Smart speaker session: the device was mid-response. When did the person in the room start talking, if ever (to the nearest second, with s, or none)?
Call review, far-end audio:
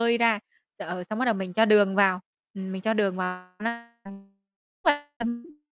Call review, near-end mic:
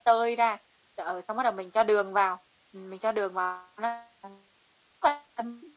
none